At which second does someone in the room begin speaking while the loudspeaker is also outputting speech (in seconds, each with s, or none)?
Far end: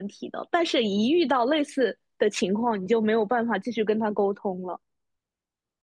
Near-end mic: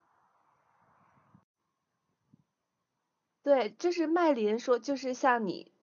3.4 s